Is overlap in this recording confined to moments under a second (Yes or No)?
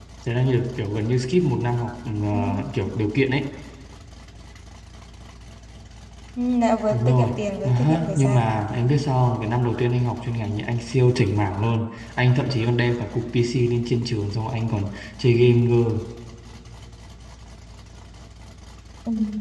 No